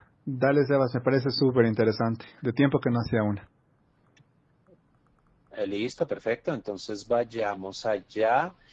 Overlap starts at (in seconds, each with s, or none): none